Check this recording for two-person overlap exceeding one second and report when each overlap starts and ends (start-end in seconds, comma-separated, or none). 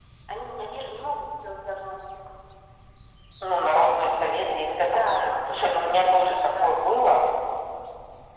4.8-6.7